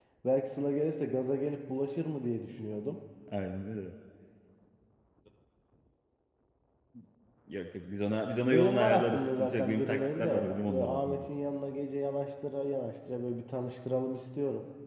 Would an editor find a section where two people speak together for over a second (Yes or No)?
Yes